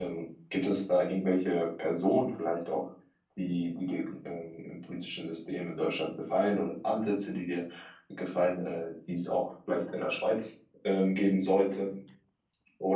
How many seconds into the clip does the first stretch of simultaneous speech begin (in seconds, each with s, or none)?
none